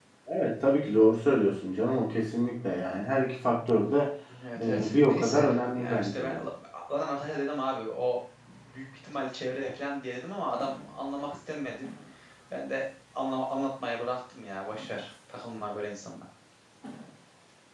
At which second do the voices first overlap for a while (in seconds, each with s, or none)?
4.6 s